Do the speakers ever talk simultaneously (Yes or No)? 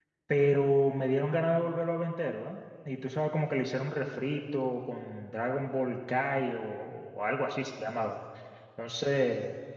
No